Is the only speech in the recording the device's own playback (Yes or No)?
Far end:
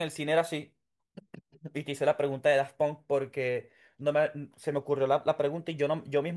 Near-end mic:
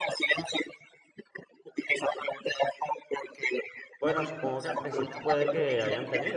No